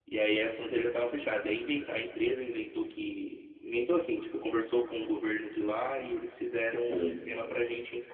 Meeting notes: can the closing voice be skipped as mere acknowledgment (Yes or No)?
Yes